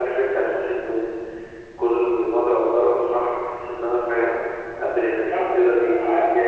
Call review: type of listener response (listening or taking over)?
taking over